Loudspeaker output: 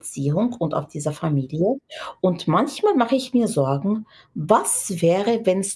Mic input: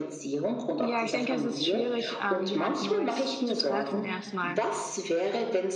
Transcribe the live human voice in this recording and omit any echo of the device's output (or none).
Ja, ich denke, es ist schwierig, ähm, jemand Neues zu treffen erstmal